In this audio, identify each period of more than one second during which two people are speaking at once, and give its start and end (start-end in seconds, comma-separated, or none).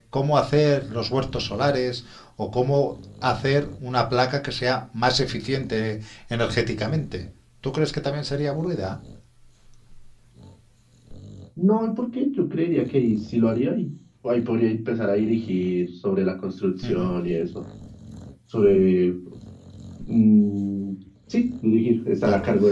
none